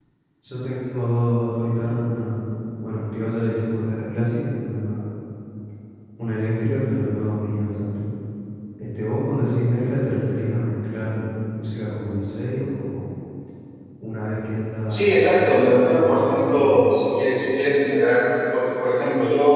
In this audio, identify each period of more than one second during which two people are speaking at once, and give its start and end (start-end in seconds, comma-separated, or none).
14.9-16.8